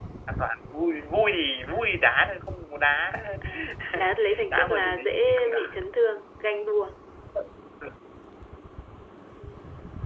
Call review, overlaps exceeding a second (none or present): present